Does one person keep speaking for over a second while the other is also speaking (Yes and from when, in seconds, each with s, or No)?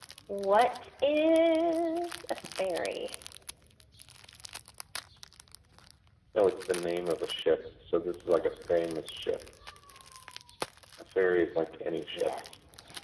No